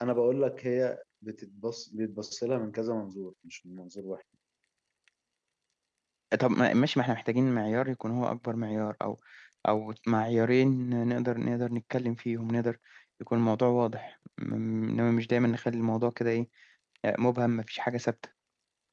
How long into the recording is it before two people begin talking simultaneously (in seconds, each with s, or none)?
none